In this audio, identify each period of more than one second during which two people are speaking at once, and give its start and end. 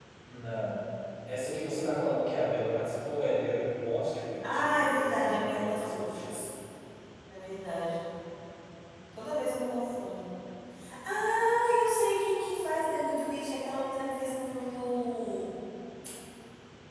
4.4-6.4

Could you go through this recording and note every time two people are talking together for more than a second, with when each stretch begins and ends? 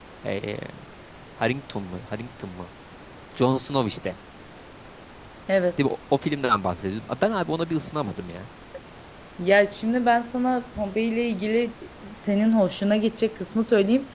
none

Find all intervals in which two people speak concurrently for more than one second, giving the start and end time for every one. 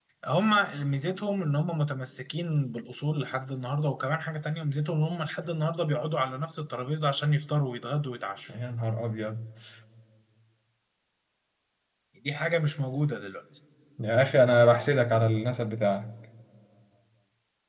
none

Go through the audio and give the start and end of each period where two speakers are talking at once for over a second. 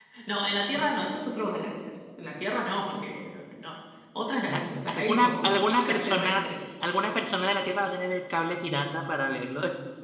4.4-6.4

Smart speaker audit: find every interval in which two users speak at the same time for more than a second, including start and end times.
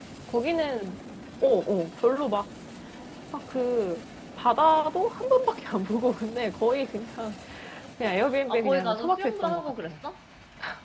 8.5-9.9

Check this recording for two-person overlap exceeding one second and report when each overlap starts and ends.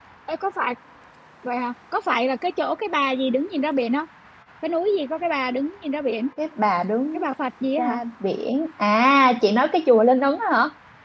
none

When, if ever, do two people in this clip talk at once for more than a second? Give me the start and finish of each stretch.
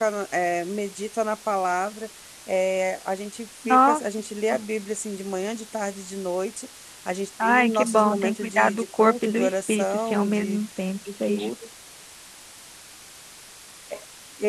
7.4-10.6

